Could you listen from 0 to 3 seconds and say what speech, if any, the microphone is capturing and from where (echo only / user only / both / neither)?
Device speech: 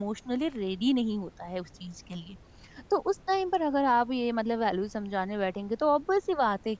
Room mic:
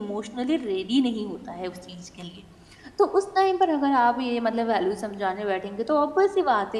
echo only